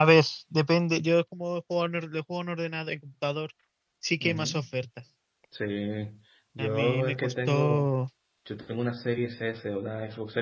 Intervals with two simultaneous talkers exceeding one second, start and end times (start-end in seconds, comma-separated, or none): 6.6-7.9